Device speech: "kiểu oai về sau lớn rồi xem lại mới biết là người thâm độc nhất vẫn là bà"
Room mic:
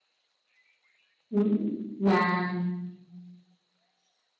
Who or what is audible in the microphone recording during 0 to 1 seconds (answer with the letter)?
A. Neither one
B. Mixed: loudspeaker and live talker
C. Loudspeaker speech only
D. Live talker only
A